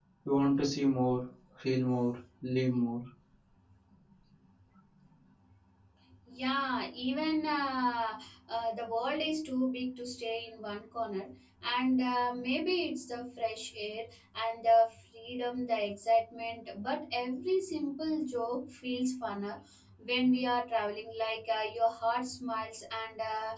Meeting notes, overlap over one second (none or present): none